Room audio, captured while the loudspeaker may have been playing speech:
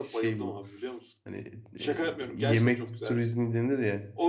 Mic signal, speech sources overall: both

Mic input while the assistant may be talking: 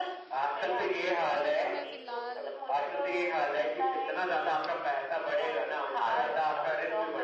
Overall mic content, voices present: both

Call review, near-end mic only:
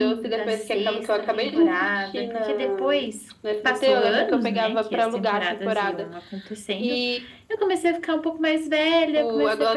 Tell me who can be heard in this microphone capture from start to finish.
echo only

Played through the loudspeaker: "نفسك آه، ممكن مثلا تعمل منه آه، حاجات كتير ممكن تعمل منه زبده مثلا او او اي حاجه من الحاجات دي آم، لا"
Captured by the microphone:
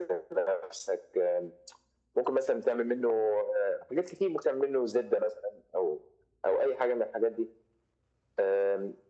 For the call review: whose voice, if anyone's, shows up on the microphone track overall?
echo only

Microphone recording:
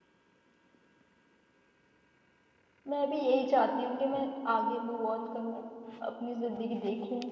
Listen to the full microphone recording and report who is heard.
user only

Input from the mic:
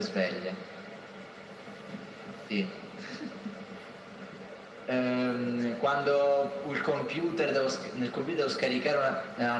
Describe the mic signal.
echo only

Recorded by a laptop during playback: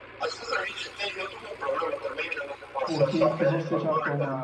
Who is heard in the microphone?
both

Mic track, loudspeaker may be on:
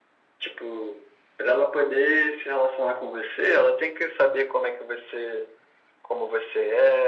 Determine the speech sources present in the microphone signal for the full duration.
echo only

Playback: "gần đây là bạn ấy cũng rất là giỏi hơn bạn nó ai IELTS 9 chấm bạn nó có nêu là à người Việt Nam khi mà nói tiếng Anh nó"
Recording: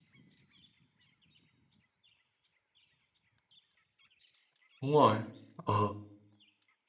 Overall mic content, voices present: user only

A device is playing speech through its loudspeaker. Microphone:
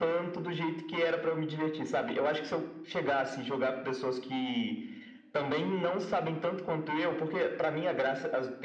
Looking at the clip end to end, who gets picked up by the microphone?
echo only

